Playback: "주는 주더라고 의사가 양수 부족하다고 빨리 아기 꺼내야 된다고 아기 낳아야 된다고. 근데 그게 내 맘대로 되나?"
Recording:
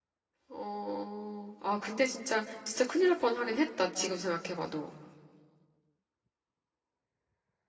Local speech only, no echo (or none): 어, 아, 근데 진짜, 진짜 큰일 날 뻔하긴 했다. 지금 생각해봐도.